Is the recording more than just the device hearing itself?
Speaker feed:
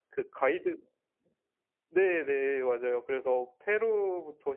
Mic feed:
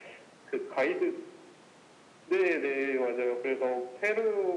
No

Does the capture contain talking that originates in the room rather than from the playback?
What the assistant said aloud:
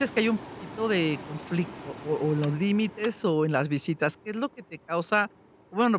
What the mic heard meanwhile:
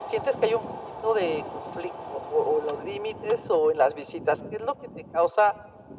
No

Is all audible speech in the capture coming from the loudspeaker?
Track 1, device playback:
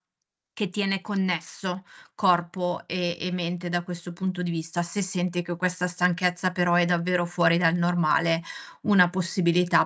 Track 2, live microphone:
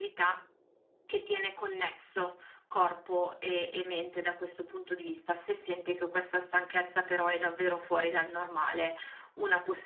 Yes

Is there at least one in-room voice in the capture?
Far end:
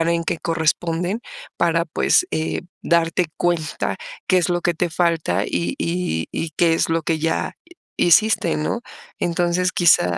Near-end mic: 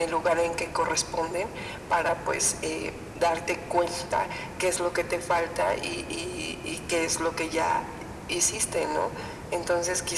No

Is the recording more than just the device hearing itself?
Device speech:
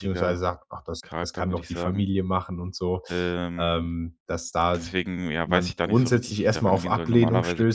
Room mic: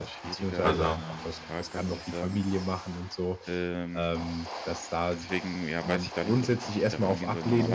Yes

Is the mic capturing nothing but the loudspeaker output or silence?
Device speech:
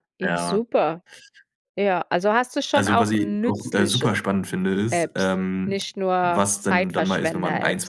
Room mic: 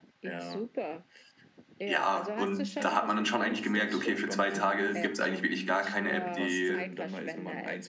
No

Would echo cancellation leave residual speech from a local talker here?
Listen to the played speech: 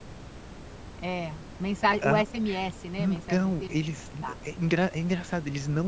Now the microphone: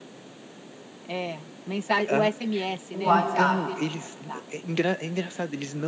Yes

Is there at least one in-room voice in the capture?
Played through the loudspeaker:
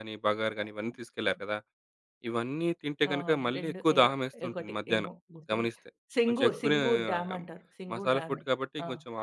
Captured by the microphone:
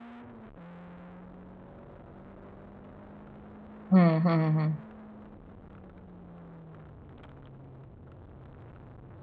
Yes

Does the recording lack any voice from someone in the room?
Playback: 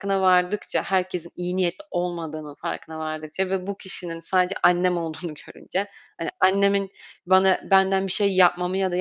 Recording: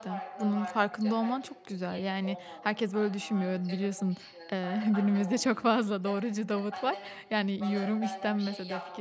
No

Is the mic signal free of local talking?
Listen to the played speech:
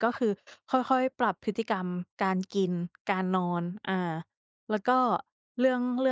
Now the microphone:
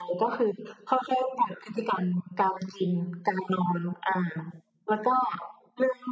Yes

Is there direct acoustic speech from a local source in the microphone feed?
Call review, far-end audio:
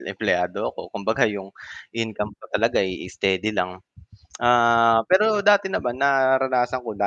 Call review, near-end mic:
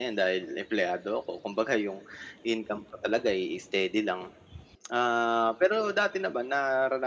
No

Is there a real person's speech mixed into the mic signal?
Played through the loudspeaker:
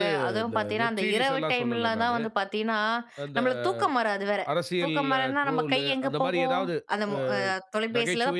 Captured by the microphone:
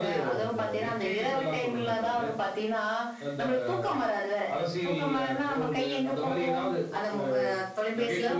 No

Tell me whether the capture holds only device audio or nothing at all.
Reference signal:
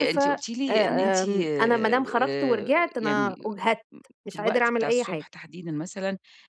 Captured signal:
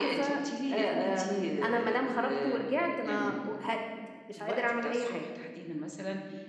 Yes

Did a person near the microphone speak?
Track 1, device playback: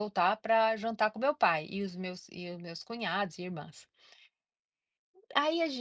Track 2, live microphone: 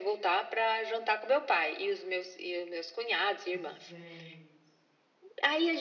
Yes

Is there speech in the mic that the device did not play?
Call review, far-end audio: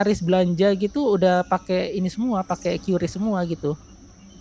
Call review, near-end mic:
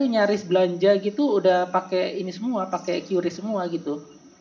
No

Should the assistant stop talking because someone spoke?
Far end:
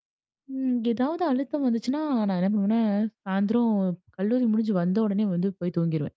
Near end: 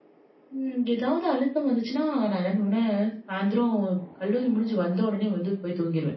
No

